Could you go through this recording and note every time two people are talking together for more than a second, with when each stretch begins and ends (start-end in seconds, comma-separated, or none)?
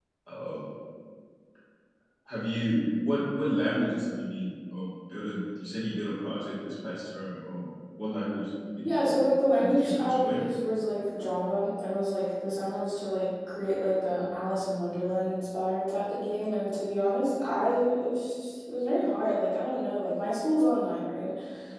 8.8-10.4